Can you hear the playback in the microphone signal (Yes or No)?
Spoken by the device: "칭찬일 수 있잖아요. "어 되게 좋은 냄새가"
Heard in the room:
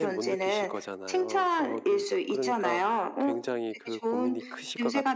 Yes